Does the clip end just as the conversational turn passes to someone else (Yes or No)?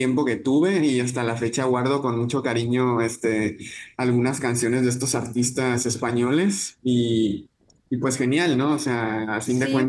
Yes